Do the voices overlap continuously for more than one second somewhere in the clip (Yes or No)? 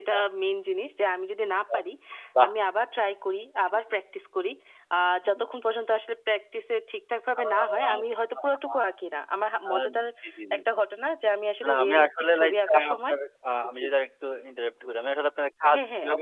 Yes